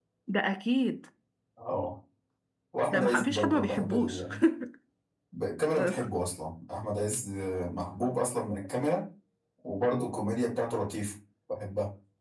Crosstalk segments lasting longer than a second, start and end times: 2.9-4.2

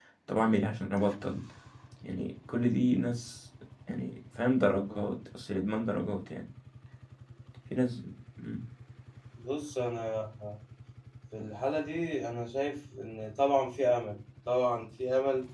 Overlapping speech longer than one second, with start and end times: none

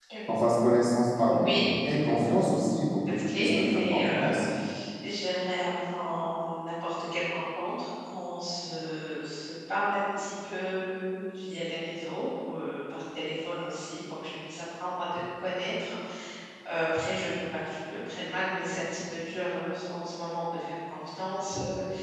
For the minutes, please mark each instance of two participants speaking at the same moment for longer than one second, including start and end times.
3.1-4.4

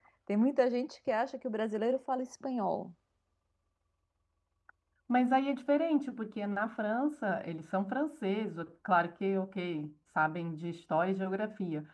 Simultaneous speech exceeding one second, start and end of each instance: none

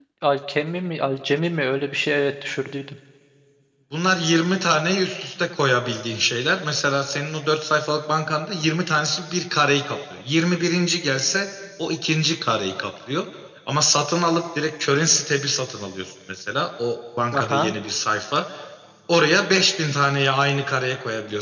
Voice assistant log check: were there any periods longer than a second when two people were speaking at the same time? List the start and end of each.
none

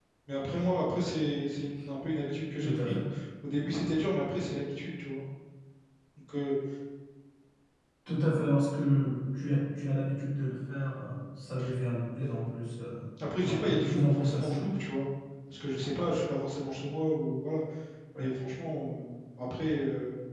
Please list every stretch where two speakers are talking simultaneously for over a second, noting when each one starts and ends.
13.4-14.7

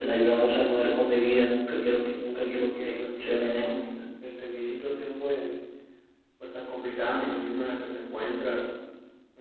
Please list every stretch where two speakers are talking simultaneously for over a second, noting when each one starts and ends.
2.5-3.9

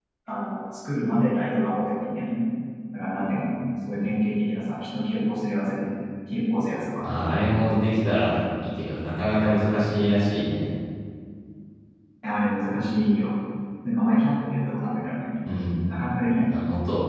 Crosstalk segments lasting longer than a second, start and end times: none

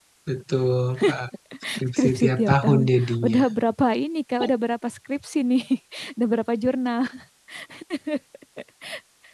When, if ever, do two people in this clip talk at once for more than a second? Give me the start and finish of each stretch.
1.7-3.4

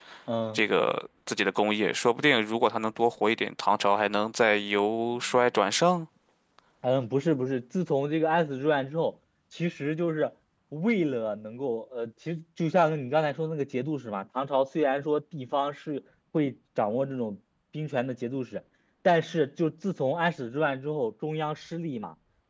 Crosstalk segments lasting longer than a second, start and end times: none

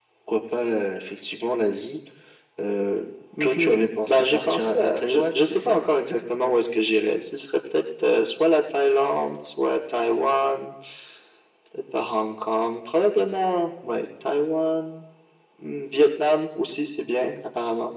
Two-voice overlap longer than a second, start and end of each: 3.4-5.8

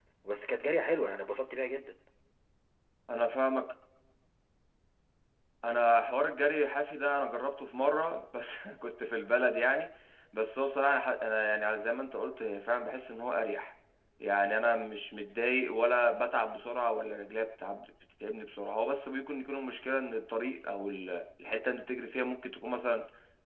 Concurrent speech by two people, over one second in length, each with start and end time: none

